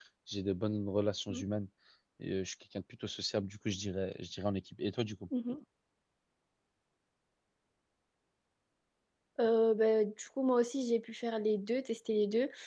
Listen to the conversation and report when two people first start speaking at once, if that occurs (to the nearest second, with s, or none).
none